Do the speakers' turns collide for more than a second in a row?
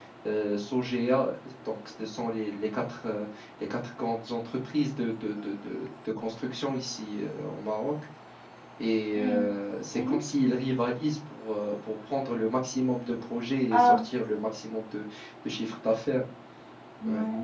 No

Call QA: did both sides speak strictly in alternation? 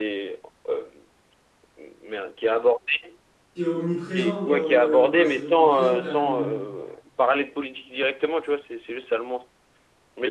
No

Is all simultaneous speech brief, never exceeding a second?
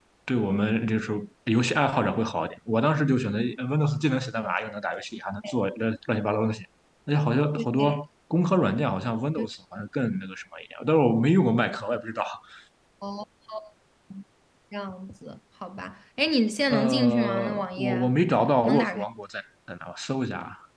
No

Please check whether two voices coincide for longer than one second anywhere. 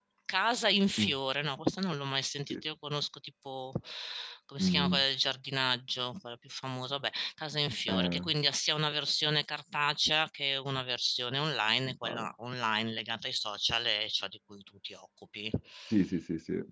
No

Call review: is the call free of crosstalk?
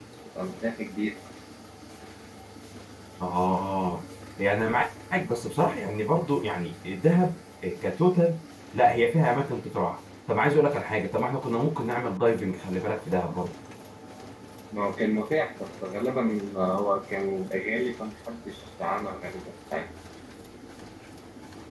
Yes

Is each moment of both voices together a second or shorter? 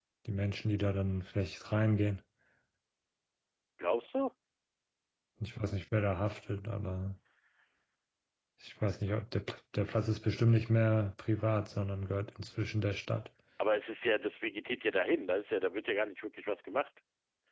Yes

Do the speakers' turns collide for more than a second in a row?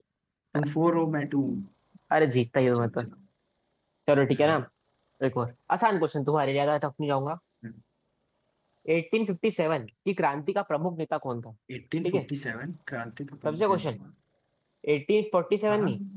No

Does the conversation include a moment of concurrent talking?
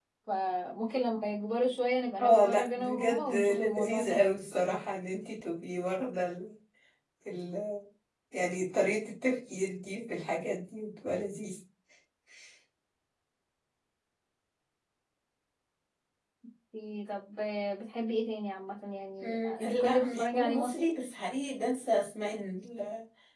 Yes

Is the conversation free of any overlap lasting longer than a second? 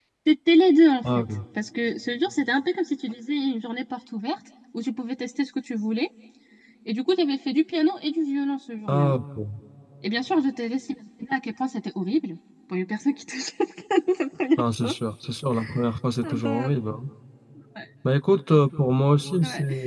Yes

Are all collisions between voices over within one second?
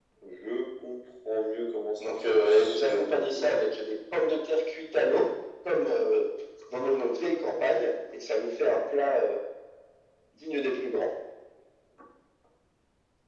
No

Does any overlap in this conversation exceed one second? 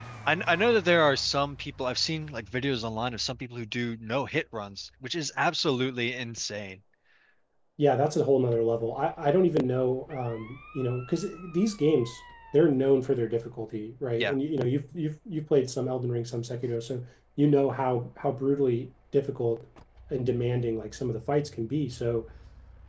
No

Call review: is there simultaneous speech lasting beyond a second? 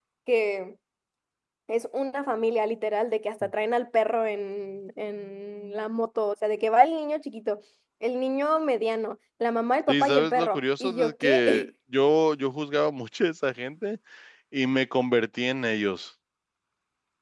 Yes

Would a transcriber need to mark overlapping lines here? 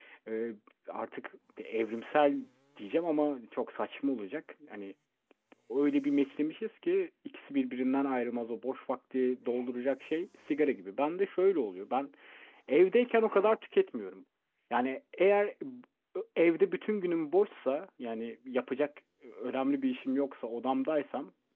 No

